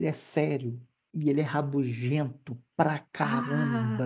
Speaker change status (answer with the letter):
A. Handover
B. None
B